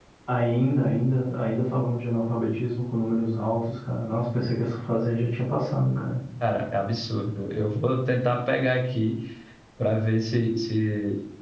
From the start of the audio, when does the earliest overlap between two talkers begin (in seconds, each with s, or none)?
none